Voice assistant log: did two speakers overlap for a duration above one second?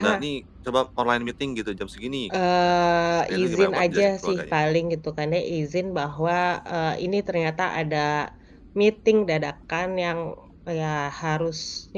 Yes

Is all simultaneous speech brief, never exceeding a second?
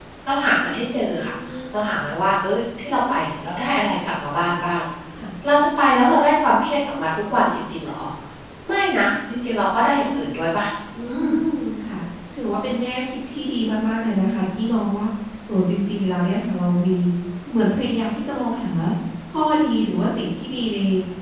Yes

